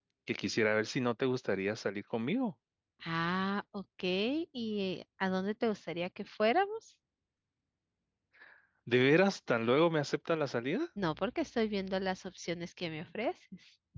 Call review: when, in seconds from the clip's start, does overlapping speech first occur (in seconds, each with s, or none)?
none